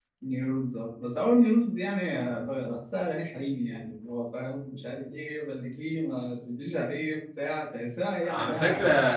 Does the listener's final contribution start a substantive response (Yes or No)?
Yes